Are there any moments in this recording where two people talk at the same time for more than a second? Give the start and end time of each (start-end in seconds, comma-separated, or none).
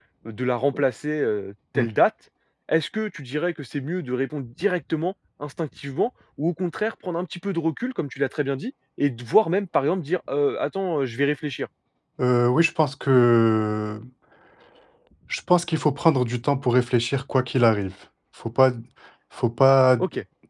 none